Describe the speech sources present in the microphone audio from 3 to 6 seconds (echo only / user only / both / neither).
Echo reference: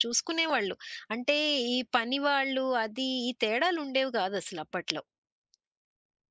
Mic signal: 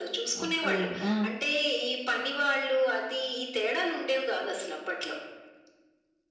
echo only